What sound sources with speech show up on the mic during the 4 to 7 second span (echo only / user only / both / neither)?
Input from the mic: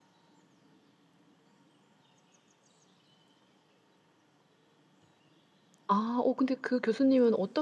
user only